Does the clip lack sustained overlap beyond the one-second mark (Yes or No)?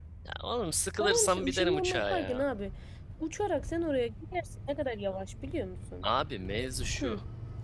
No